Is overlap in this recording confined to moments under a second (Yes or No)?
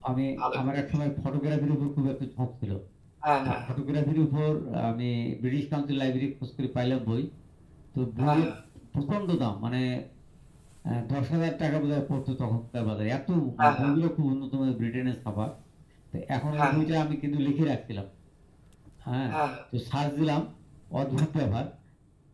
Yes